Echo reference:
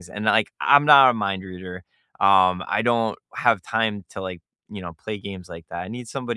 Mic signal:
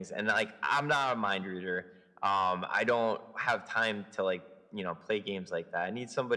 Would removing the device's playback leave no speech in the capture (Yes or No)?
Yes